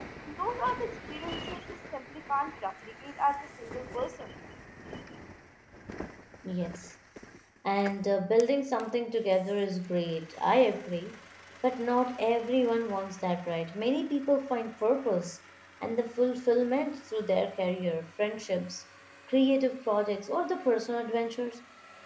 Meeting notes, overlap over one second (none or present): none